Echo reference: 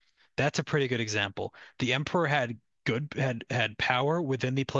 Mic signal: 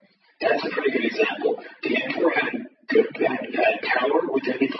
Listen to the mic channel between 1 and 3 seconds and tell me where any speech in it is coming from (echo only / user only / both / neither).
echo only